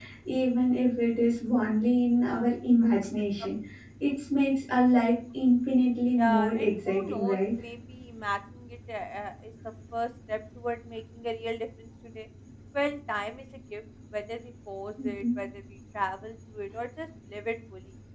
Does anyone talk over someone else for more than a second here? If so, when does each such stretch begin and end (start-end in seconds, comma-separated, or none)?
6.2-7.4